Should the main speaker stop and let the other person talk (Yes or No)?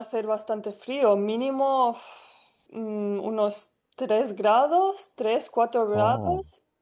No